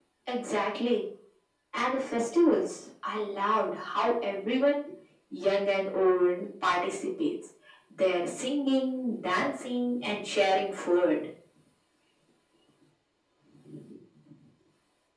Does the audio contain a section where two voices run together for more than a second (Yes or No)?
No